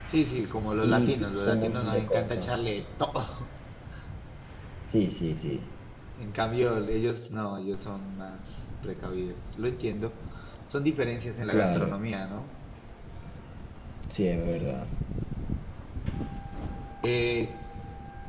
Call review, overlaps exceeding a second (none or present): present